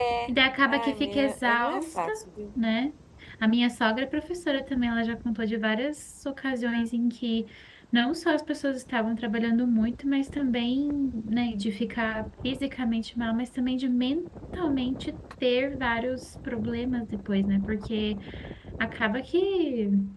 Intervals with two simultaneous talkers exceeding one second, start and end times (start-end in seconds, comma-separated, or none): 0.7-2.1